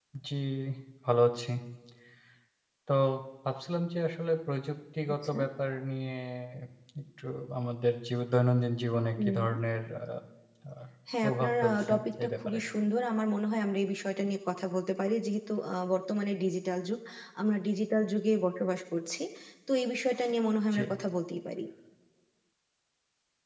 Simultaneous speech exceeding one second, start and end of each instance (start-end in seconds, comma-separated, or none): 11.2-12.6